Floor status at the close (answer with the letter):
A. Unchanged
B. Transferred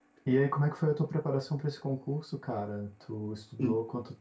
A